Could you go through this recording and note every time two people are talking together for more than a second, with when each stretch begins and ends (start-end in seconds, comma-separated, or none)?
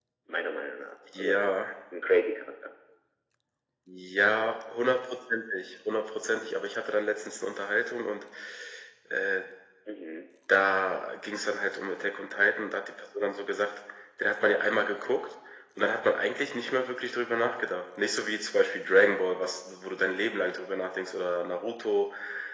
none